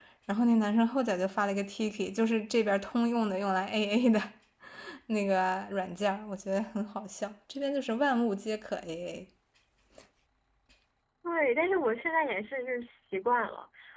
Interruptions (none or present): none